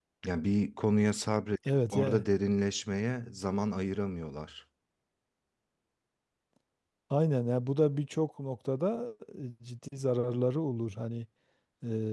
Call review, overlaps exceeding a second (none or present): none